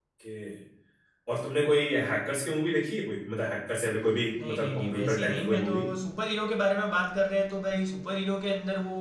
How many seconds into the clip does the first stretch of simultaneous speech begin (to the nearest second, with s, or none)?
4 s